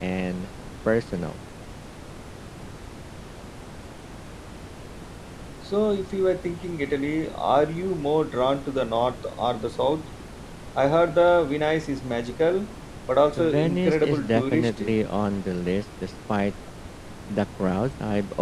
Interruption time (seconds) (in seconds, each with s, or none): 13.4 s